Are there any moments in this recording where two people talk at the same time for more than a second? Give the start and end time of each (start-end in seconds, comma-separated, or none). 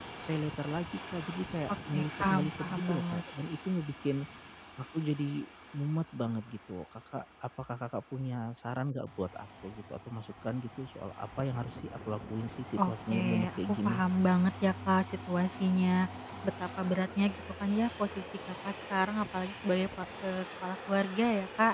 1.9-3.2, 12.8-14.0